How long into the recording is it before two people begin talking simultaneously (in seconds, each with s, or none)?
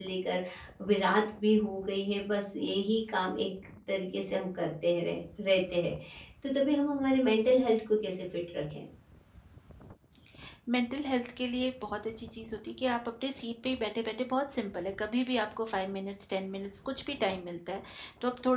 none